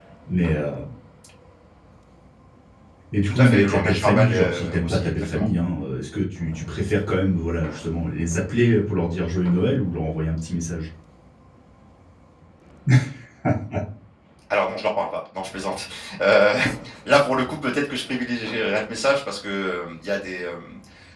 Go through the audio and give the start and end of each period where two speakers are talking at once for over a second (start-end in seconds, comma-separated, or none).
3.3-5.4